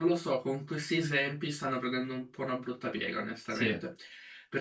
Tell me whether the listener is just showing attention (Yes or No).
Yes